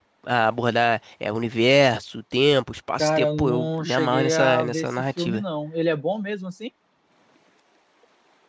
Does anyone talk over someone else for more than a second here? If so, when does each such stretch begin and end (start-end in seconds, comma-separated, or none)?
3.0-5.4